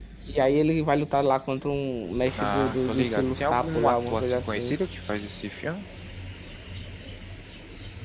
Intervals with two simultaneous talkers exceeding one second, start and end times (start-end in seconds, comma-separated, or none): 2.4-4.8